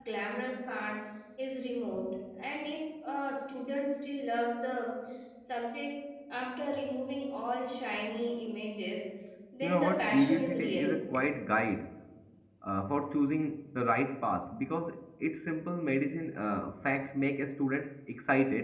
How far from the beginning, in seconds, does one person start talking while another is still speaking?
10 s

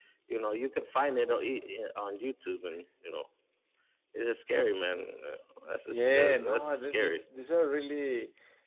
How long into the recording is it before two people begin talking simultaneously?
6 s

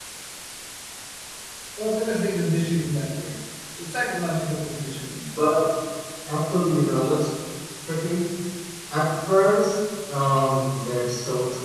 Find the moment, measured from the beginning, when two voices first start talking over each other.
none

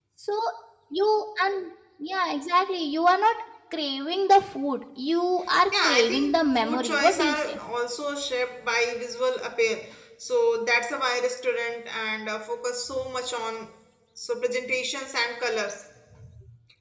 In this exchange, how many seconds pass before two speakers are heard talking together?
6 s

